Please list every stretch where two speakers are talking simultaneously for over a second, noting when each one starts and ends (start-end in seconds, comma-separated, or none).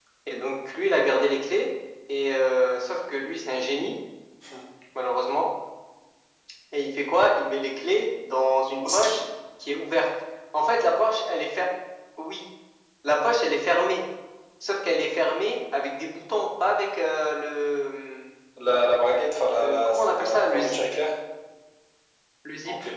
19.6-20.8